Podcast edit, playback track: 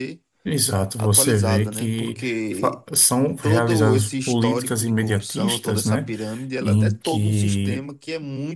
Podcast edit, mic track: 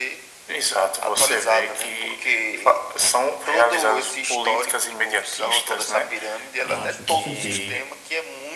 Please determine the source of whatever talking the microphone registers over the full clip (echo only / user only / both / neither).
both